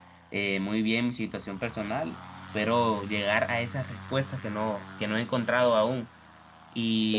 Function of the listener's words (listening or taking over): listening